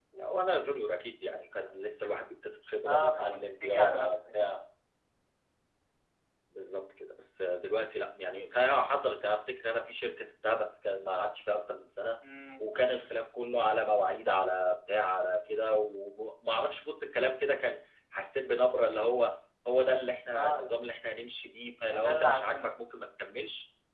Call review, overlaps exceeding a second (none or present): present